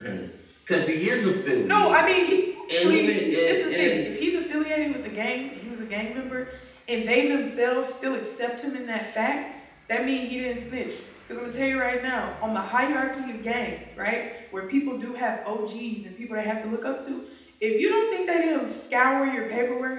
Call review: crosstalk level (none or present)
present